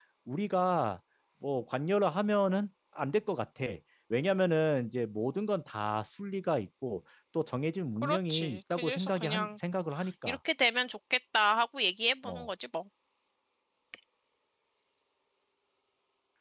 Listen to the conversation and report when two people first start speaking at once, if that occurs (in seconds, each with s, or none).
8.0 s